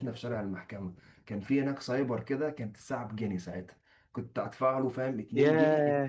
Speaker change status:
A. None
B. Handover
A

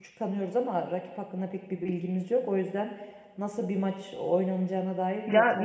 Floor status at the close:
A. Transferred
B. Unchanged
A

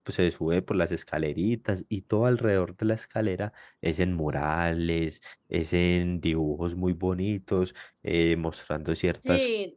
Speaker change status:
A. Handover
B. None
A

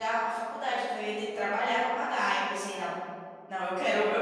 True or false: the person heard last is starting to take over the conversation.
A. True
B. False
A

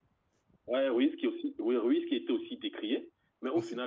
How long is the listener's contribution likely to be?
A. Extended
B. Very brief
B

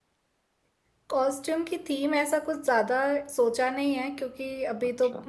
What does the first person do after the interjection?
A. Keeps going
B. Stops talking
A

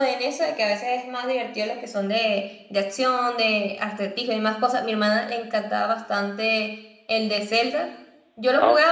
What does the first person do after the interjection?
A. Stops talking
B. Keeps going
B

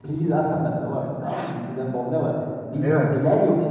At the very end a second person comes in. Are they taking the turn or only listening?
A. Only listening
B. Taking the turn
A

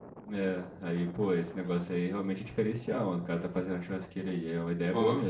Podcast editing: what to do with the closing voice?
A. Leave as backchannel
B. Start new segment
B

